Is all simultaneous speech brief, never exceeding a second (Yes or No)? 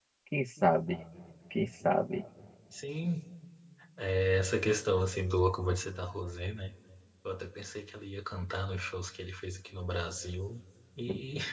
Yes